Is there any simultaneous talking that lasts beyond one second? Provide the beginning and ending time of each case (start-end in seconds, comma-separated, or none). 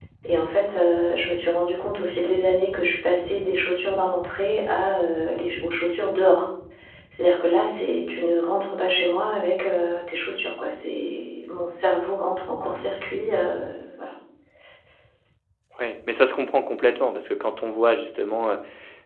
none